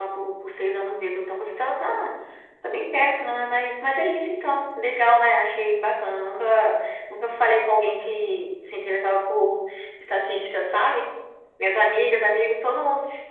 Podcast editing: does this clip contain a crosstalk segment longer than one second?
No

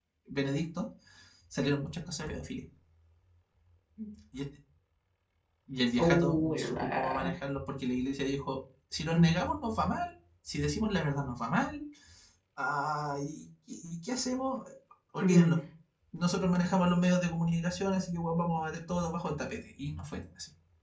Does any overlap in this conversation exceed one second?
Yes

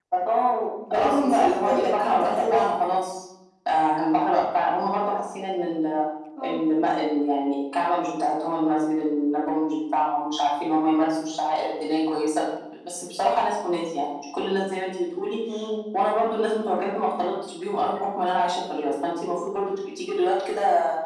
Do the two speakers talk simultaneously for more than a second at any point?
Yes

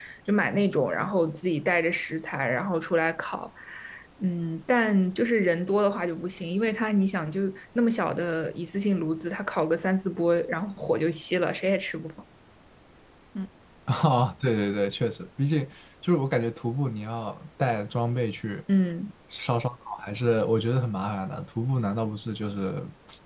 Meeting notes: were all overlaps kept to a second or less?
Yes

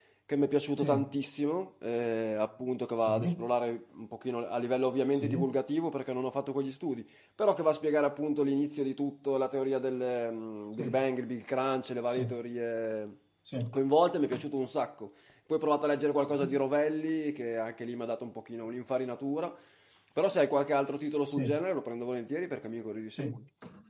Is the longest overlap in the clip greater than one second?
No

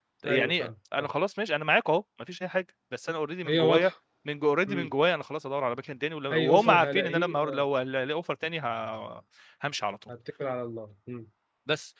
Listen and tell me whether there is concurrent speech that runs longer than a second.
Yes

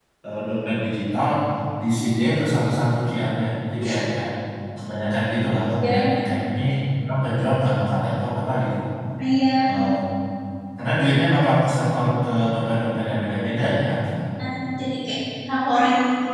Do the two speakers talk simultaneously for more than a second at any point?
No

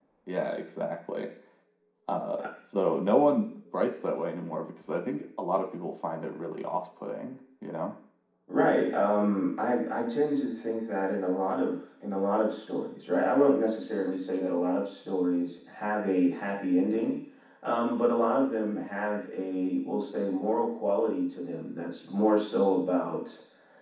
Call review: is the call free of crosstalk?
Yes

